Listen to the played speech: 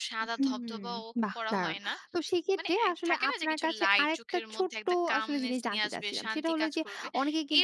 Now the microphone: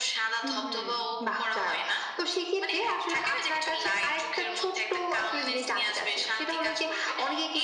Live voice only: none

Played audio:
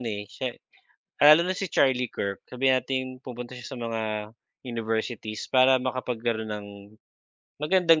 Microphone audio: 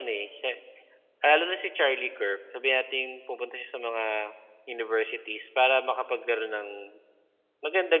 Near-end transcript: none

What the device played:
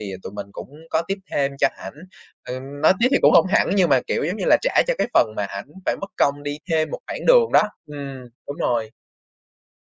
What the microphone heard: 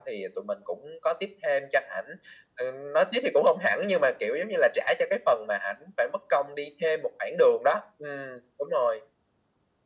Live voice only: none

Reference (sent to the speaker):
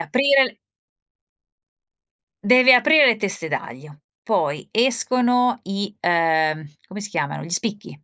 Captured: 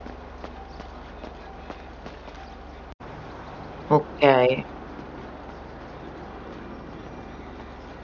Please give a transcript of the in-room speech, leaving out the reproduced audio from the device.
Okay.

